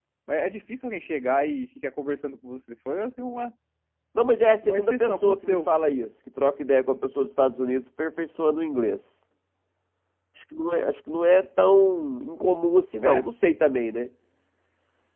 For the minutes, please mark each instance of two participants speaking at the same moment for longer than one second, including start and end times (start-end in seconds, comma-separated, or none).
4.6-5.9